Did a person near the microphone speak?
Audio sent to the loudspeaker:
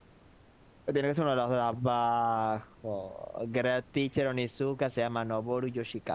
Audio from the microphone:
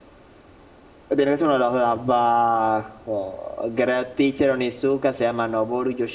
No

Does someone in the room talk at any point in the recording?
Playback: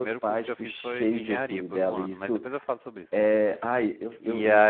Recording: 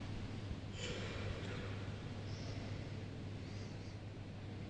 No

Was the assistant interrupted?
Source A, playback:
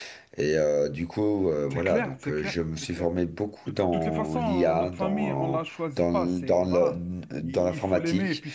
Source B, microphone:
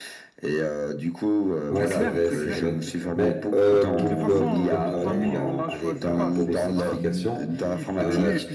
Yes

